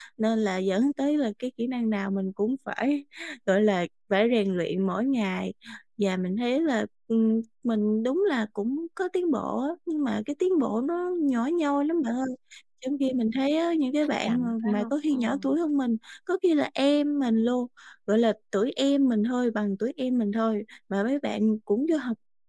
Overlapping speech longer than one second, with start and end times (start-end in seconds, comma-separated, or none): 14.2-15.6